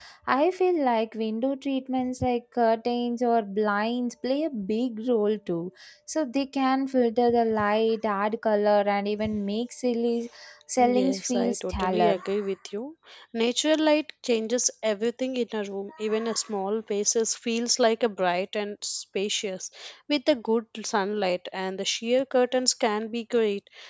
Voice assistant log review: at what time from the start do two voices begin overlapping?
10.9 s

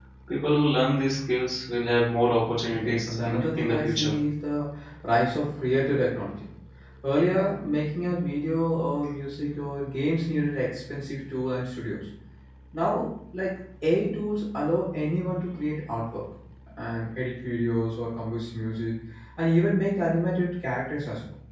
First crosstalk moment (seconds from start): 2.7 s

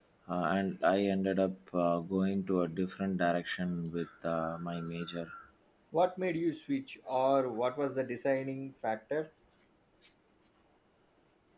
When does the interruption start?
none

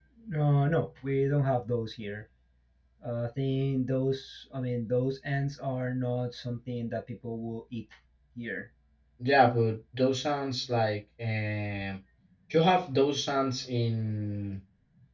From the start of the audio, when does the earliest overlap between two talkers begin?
none

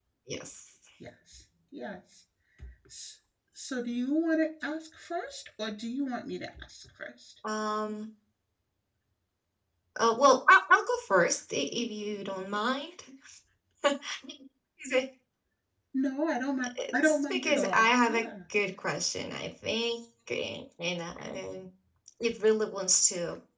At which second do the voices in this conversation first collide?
16.8 s

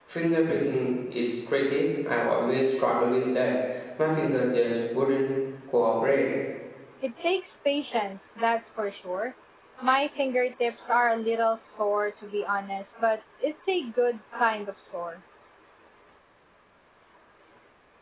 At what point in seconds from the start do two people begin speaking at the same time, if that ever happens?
none

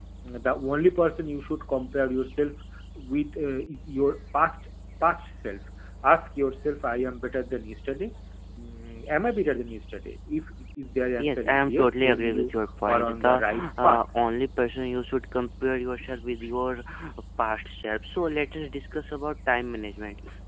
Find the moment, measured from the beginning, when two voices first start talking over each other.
11.2 s

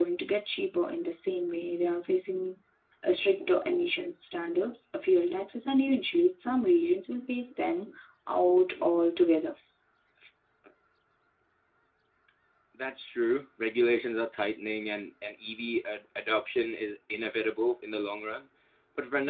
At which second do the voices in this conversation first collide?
none

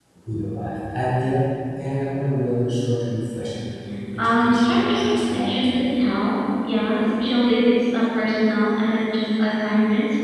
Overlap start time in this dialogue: 4.2 s

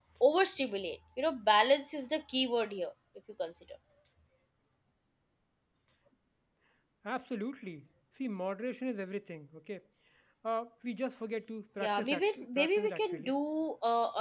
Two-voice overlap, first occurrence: 11.8 s

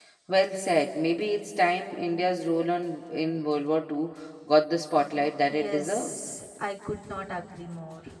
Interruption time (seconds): 5.0 s

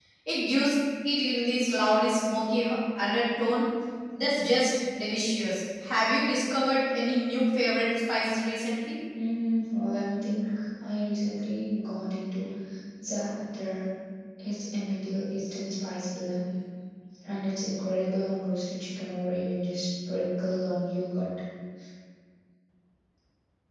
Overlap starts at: none

